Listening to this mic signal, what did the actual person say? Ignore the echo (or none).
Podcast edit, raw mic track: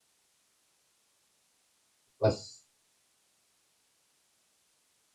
parce